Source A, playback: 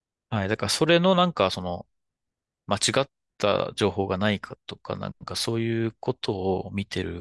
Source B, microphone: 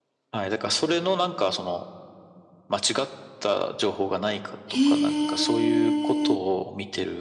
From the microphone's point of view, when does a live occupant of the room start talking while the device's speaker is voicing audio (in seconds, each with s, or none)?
4.7 s